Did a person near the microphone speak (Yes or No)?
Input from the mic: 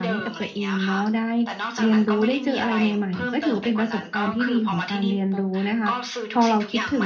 Yes